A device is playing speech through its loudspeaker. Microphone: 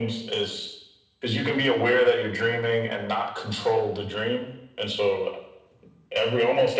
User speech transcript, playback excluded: none

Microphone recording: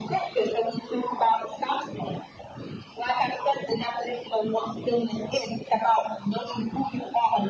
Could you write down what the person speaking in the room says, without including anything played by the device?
none

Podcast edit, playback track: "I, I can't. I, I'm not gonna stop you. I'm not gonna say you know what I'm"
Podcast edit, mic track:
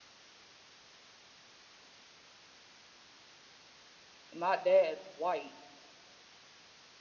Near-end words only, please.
my dad's white,

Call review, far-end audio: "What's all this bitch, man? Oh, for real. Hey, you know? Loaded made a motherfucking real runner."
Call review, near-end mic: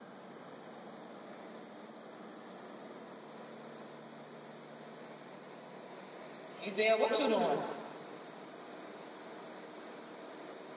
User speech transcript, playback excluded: Ezell, what you doing?

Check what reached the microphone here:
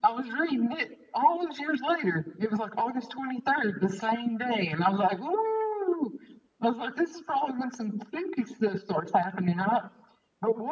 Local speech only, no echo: none

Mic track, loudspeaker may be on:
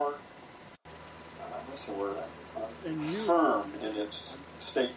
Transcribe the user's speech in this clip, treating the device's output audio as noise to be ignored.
and you you say I- I'm.

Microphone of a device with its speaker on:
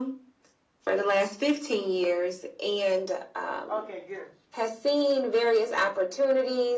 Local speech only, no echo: Okay, good.

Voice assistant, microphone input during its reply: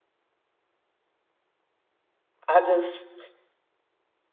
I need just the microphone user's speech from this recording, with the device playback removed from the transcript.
I just

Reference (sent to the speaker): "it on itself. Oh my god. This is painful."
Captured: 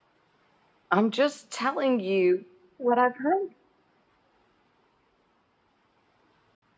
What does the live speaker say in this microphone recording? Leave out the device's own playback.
I'm just telling you what I've heard.

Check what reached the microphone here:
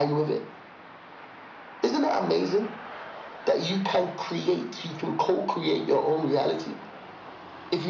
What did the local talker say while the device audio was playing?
none

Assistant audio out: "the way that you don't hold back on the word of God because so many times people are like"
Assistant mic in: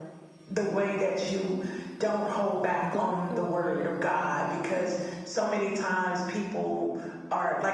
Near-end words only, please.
Buckle down in this season.

